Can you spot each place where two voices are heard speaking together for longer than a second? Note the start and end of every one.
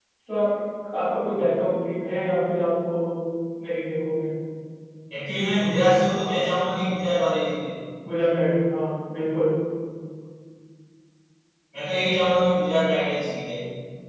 none

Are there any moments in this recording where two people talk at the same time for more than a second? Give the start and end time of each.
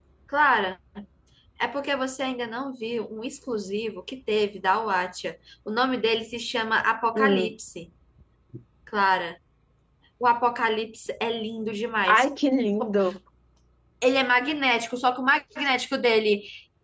none

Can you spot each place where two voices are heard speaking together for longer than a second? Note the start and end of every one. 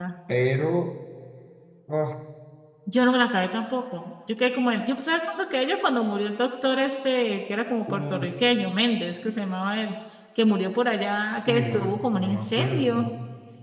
11.5-13.1

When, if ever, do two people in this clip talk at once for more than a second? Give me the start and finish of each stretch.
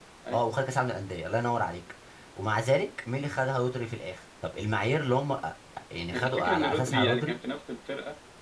6.1-7.4

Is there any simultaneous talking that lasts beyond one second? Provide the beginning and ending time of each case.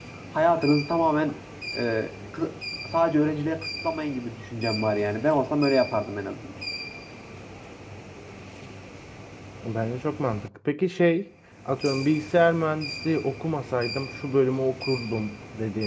none

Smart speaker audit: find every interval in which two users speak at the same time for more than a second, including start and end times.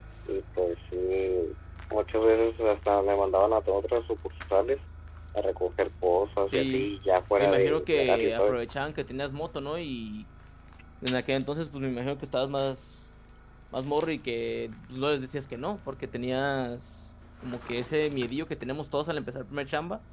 7.4-8.6

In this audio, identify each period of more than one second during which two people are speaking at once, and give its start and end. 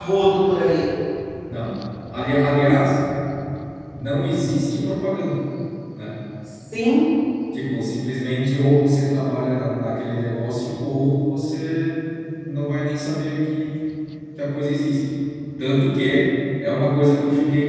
none

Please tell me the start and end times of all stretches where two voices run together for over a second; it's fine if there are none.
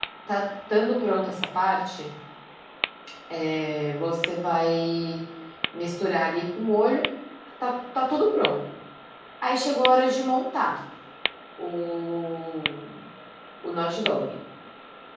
none

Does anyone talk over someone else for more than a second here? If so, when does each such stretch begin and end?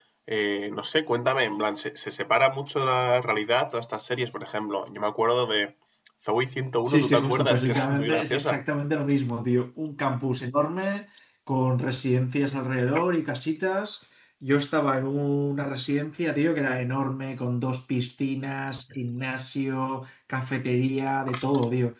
6.9-8.6

